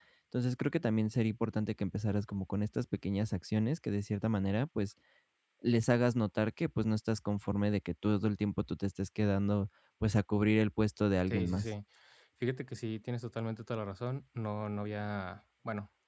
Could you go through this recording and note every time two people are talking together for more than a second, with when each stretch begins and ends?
none

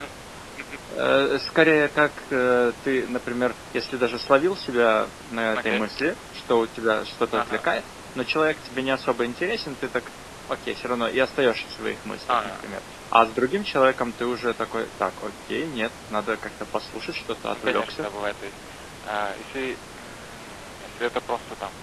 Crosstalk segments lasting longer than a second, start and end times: none

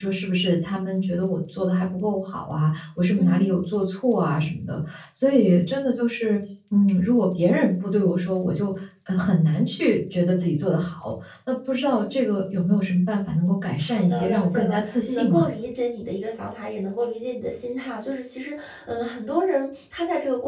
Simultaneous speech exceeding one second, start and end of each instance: 13.8-15.4

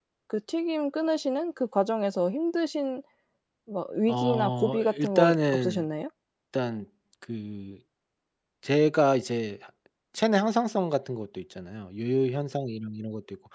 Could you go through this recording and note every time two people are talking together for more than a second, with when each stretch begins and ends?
4.1-5.9

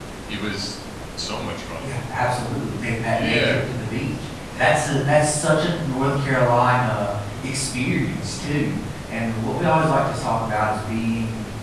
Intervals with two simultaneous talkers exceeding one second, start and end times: none

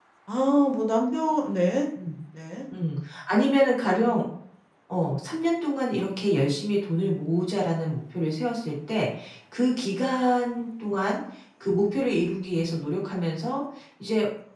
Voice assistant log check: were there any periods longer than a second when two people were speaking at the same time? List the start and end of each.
none

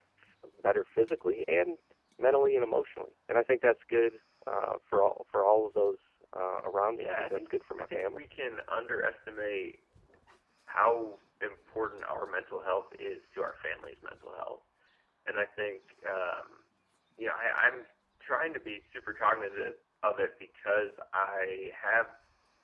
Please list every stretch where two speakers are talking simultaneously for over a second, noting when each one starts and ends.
7.0-8.2

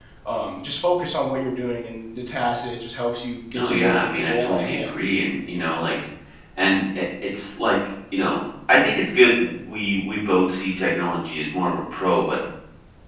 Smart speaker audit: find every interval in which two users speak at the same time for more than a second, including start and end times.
3.5-5.0

